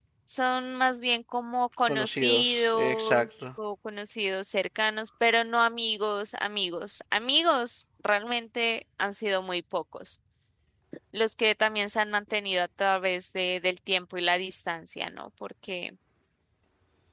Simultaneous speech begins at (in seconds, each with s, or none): 1.9 s